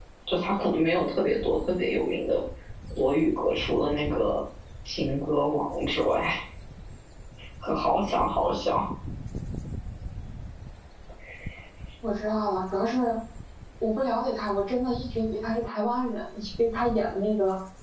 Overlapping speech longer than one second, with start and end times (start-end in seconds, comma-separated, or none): none